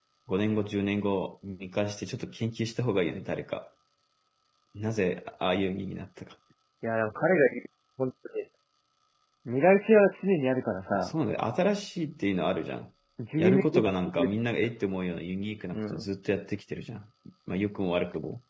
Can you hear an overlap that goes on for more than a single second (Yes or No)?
Yes